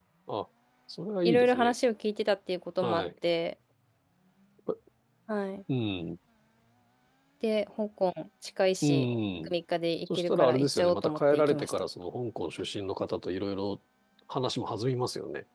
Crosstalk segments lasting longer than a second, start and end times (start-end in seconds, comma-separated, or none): 10.2-11.8